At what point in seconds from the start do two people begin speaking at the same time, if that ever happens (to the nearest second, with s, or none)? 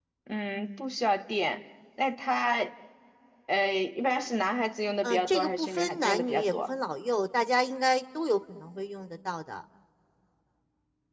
5 s